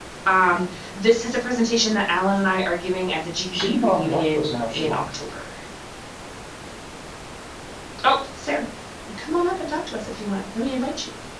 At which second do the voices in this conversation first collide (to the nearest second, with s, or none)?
4 s